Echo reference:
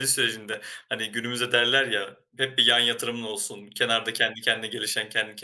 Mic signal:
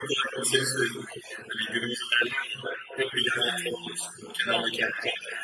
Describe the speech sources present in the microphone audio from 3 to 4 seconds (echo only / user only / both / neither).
both